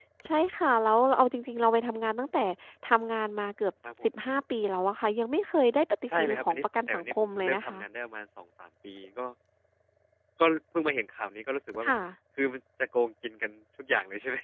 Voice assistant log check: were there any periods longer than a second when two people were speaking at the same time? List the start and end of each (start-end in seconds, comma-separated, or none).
6.1-7.8